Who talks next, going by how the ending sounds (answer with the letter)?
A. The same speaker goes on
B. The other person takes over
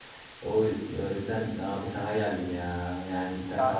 B